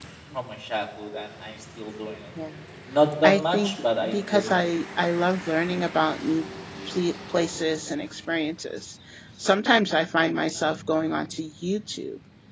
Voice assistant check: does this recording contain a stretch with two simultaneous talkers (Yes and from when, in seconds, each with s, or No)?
Yes, from 3.2 s